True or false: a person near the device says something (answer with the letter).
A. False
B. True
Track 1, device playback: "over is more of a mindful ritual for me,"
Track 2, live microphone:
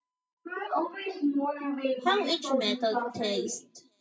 B